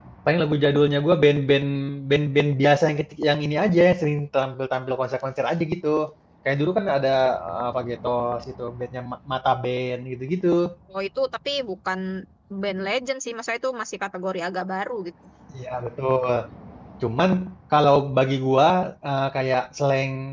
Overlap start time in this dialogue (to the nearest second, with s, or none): none